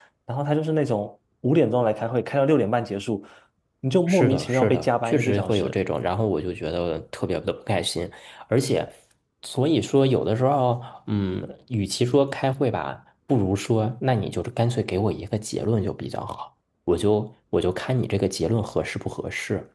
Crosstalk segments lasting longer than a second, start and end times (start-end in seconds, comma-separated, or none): 4.1-5.7